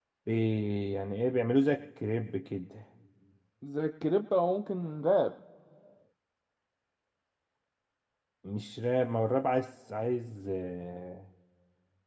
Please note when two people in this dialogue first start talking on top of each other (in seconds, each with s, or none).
none